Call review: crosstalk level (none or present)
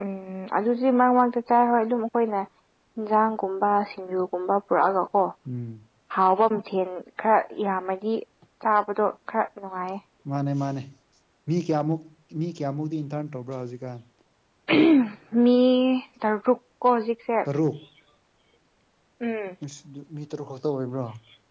none